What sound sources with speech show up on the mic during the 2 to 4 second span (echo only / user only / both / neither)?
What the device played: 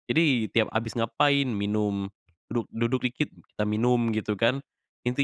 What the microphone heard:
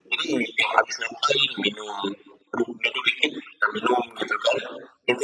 echo only